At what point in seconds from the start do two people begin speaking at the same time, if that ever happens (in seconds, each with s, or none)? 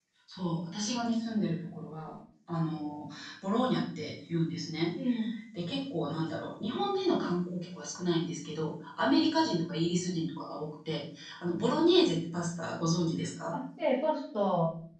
none